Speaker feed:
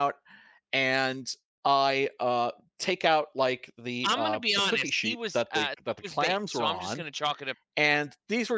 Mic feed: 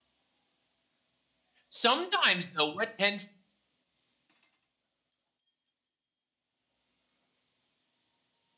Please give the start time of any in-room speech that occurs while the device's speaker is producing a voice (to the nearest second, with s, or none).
2 s